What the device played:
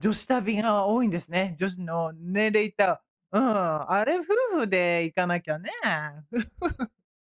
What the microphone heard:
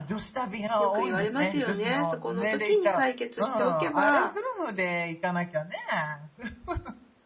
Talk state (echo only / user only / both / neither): both